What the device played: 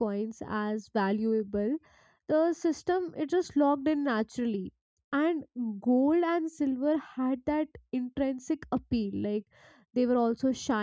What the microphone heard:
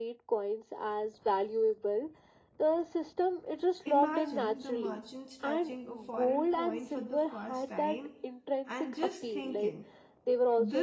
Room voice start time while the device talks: 3.8 s

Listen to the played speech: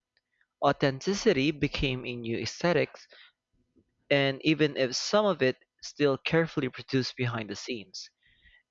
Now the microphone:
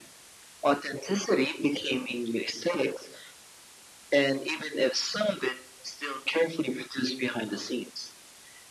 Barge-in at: none

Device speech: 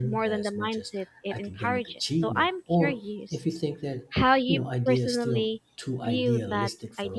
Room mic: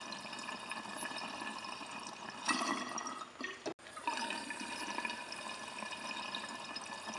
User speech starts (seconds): none

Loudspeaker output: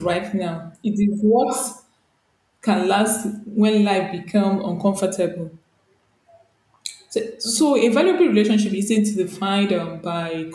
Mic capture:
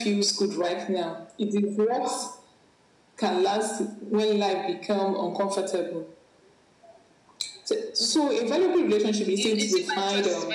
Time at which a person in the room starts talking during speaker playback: 9.3 s

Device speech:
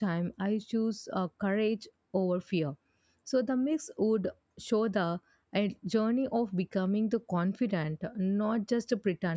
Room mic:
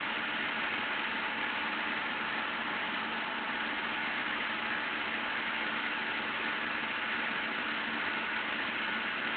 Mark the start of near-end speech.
none

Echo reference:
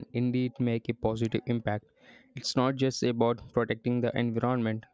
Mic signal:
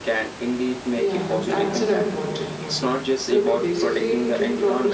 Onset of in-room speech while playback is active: 0.9 s

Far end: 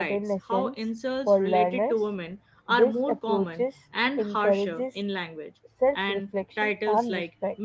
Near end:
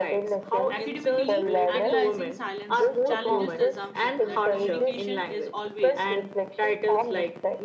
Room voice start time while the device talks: 0.7 s

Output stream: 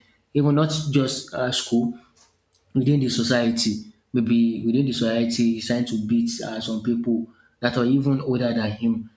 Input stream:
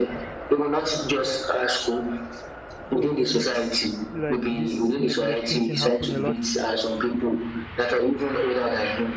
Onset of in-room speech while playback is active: 2.9 s

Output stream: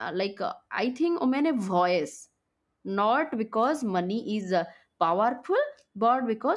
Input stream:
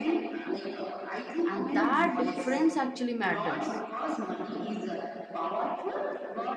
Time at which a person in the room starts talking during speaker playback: 1.5 s

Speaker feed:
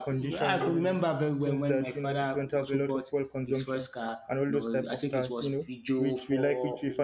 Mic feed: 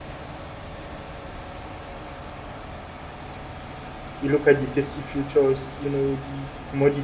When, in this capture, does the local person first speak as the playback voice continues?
4.2 s

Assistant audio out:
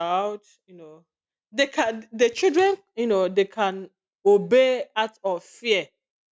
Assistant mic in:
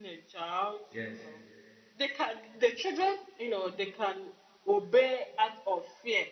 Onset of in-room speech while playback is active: 0.9 s

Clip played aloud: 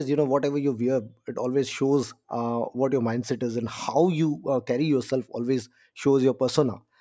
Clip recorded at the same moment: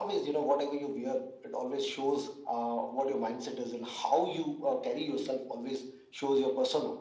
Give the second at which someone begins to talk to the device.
none

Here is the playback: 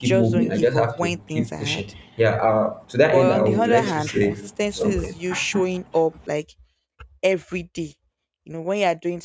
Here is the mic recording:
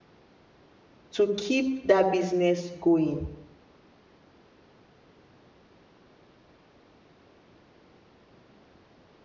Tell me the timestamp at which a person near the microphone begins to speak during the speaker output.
1.1 s

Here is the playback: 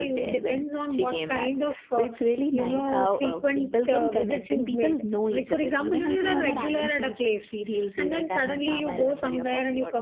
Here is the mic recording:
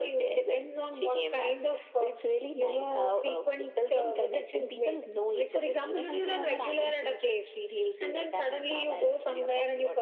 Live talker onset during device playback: none

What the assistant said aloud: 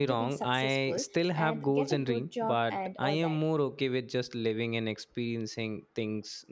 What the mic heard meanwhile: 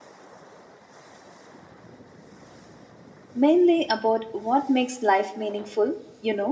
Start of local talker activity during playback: 3.4 s

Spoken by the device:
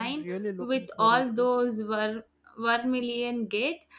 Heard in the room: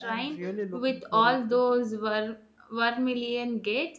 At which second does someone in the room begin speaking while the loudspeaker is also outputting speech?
none

